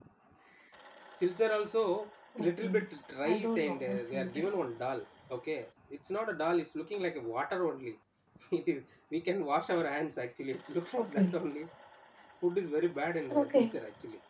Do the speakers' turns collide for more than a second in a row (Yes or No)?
Yes